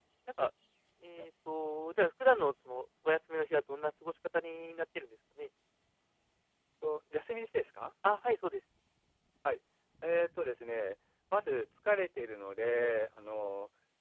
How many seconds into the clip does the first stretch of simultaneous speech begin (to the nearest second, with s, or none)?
none